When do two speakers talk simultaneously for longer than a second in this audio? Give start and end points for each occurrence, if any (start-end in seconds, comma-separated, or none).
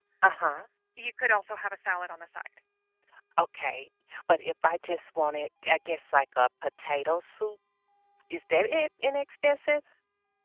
none